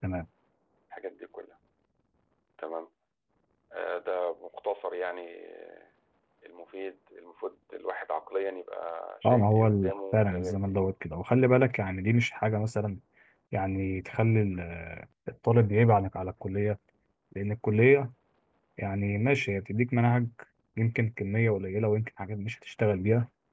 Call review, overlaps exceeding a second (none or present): present